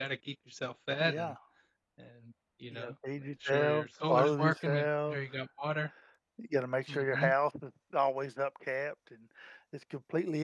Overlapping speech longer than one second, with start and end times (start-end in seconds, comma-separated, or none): 2.7-5.2